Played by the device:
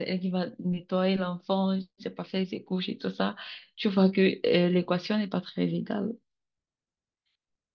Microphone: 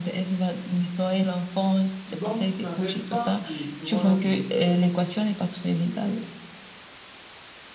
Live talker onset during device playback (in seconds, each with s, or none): 2.1 s